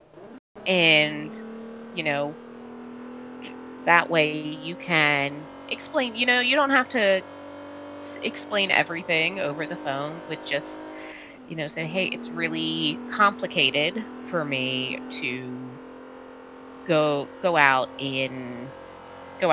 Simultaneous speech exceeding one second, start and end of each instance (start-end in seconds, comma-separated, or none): none